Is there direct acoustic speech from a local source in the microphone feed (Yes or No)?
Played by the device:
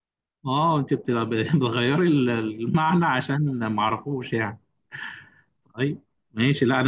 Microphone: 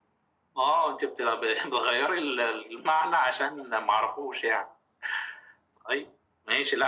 No